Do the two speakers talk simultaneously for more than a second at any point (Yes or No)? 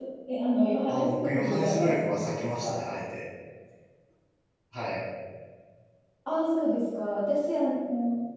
Yes